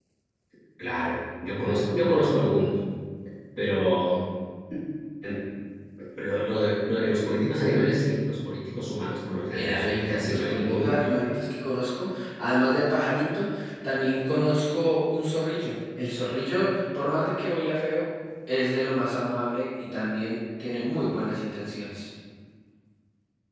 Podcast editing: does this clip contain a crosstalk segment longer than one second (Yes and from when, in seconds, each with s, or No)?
Yes, from 9.5 s